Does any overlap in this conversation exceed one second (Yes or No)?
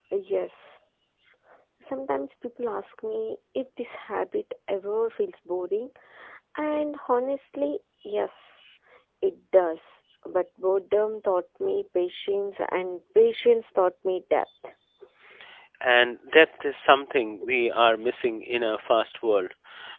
No